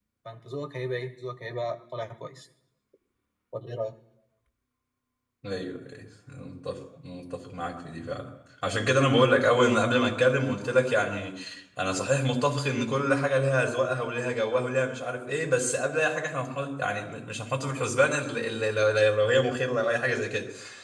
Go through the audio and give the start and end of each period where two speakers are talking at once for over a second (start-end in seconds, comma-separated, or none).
none